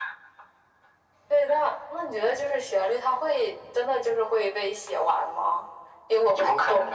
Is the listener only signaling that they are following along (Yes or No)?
No